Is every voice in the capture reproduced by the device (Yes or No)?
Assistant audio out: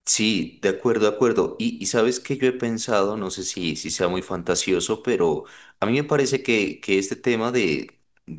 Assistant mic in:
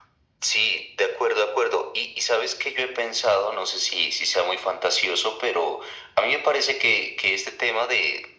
Yes